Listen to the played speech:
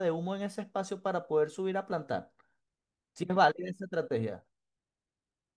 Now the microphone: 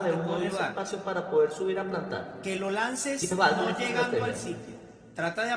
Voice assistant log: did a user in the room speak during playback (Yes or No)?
Yes